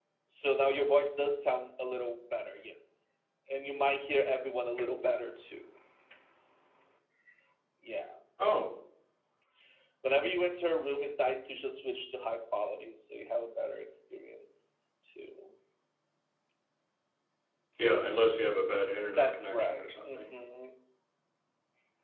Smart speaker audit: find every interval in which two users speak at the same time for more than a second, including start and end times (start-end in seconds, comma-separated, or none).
19.1-20.3